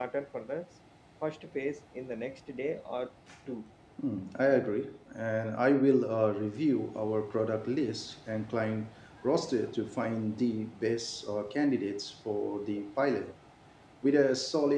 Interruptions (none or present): none